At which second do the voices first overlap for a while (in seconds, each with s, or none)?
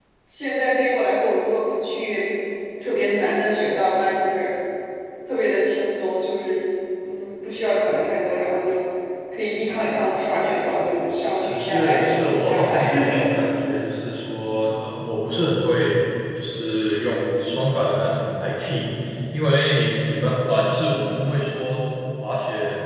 11.5 s